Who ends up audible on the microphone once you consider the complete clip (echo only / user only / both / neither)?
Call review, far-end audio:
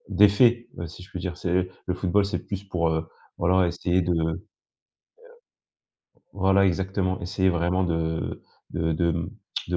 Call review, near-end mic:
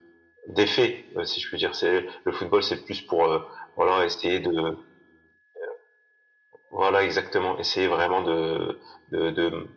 echo only